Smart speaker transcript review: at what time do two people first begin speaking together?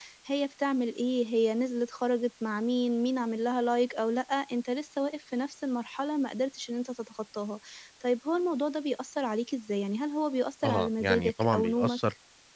10.6 s

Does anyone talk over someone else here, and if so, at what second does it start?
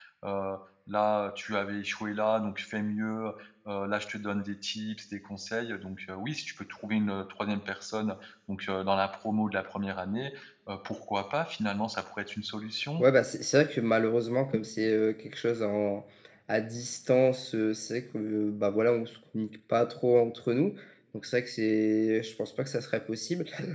none

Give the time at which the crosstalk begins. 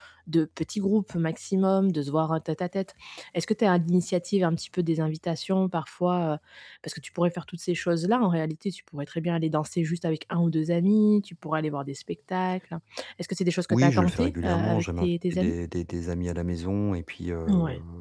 13.7 s

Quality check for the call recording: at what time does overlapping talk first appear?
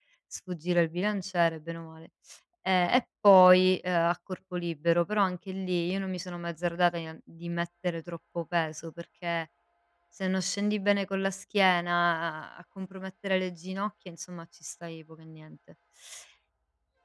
none

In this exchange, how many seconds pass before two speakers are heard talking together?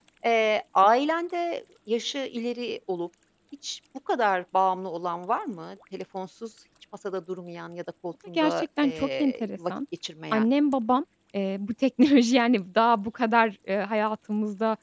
8.4 s

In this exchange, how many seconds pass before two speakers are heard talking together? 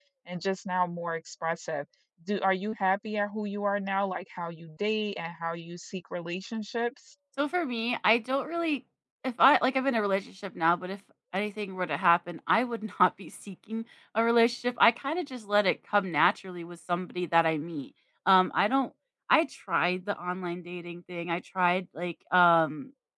none

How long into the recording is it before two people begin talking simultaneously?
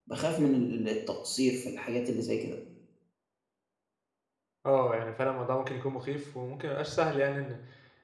none

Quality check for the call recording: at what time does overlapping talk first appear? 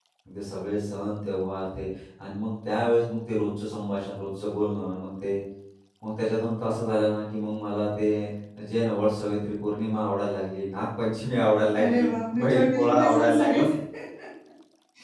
11.8 s

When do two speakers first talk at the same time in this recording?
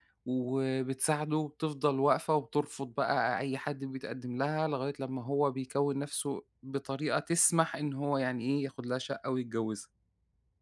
none

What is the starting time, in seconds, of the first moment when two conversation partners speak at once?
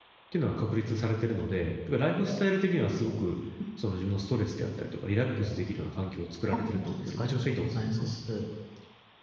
6.5 s

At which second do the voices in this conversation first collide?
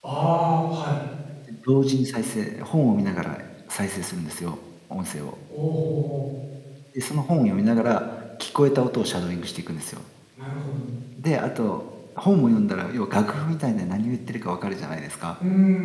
none

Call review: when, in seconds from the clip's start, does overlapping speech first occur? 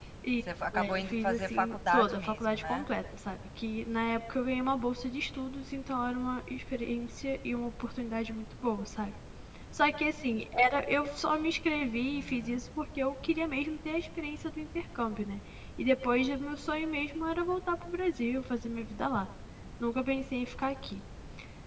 0.8 s

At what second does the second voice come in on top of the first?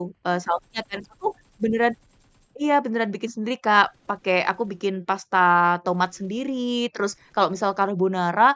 none

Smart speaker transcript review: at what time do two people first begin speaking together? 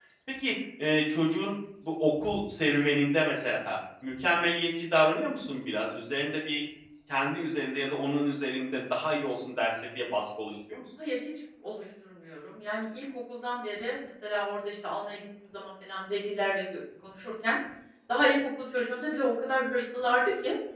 none

